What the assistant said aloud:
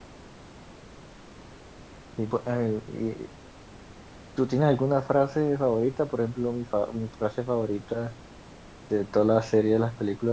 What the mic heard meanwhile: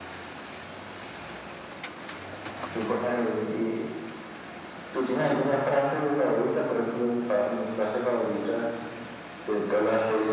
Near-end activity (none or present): none